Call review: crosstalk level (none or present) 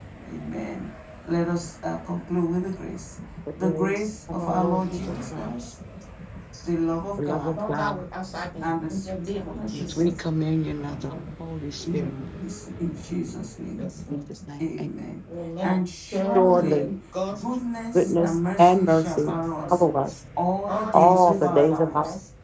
present